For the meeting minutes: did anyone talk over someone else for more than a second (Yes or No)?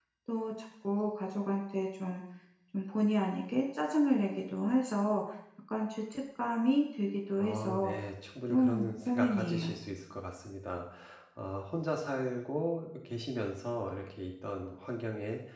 Yes